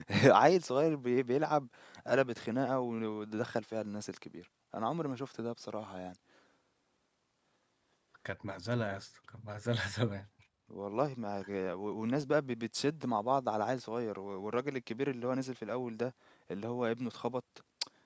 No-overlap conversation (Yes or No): Yes